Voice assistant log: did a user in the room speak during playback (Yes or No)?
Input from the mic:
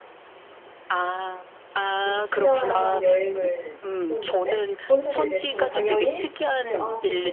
Yes